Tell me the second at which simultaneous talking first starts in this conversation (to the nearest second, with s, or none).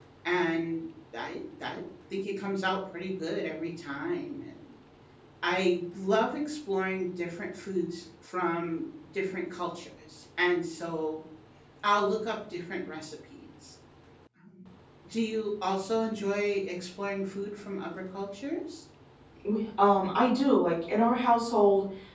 none